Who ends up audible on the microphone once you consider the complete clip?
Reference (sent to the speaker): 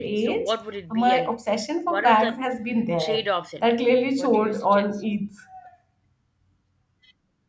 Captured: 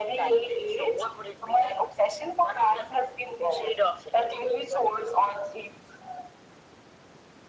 echo only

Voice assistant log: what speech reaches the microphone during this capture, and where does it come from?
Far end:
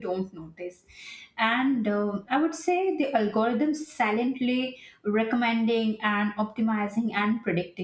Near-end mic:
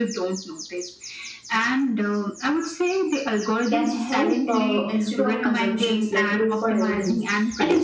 both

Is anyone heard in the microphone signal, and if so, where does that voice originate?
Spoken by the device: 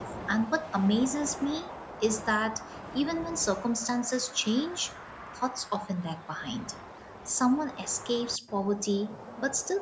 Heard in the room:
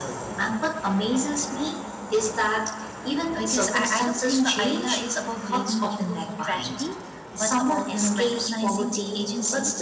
both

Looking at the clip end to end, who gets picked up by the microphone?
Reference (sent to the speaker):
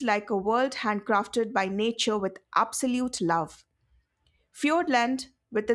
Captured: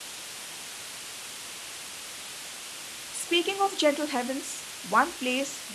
user only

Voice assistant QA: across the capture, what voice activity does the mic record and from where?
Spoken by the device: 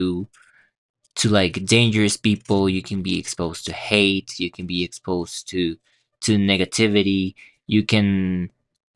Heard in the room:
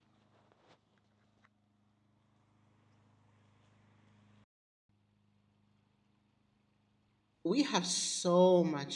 user only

